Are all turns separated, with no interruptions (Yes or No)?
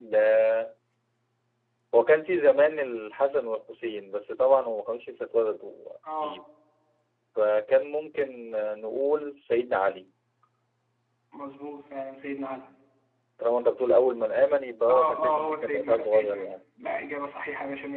No